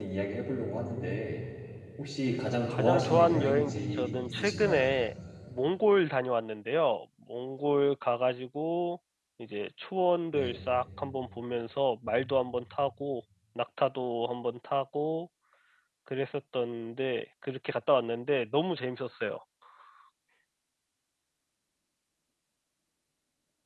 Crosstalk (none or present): present